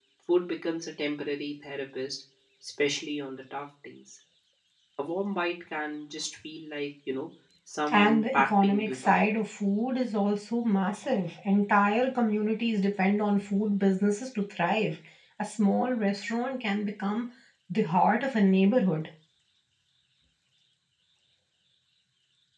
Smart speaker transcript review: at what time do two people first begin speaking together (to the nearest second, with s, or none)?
8 s